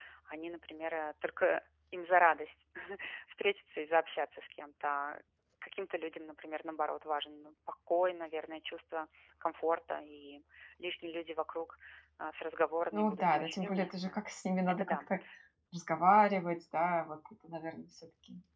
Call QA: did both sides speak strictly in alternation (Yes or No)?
No